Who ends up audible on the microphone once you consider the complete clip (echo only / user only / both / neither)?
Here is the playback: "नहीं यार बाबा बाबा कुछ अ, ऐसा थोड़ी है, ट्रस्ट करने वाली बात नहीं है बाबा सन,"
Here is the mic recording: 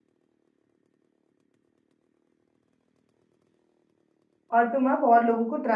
user only